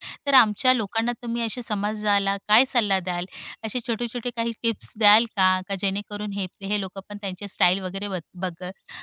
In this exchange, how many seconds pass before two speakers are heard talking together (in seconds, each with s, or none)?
none